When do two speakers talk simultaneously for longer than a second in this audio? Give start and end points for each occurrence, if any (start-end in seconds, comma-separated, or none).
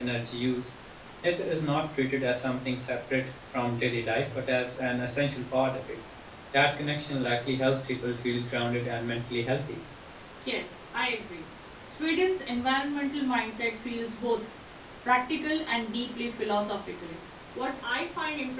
none